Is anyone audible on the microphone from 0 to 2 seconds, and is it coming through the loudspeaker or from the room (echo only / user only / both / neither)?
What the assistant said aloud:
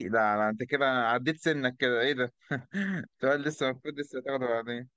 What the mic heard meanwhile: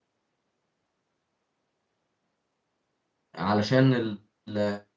neither